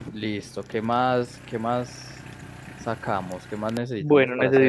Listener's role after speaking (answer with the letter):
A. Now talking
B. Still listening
A